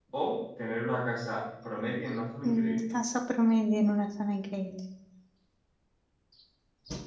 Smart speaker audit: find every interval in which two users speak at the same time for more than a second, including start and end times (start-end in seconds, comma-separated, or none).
none